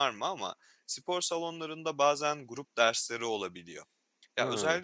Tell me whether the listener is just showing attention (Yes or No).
Yes